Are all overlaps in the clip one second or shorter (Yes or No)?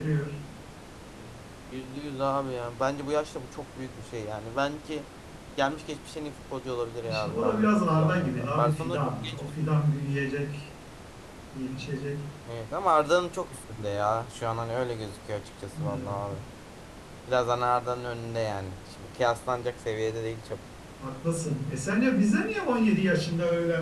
No